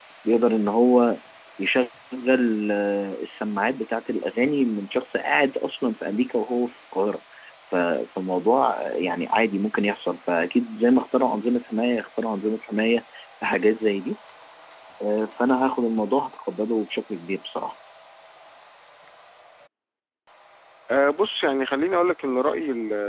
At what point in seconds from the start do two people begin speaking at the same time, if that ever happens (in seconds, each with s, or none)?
none